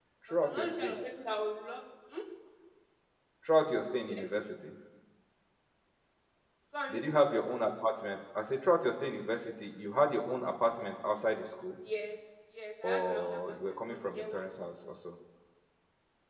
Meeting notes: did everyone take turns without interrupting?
No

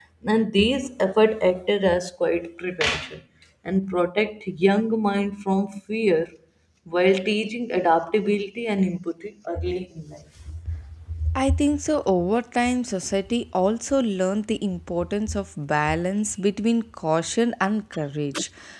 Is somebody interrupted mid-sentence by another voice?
No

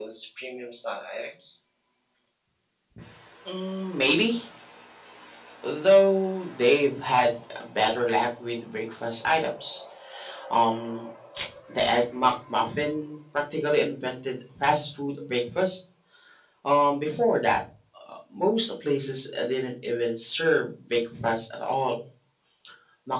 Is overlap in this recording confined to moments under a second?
Yes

